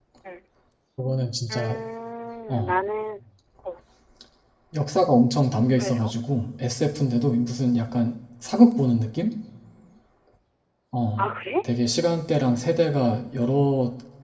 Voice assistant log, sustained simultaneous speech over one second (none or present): none